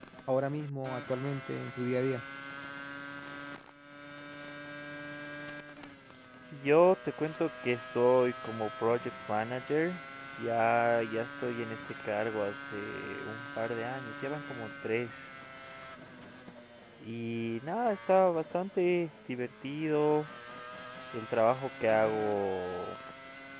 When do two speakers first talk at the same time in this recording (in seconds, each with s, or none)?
none